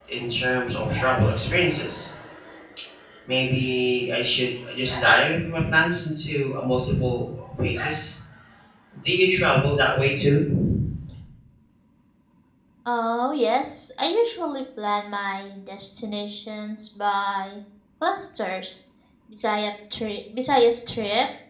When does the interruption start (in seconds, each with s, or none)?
none